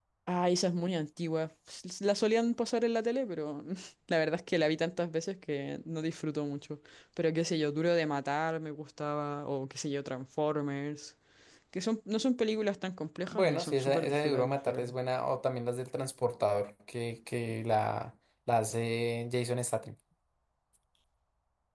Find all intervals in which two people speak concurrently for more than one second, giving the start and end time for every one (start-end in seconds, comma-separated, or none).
13.3-14.9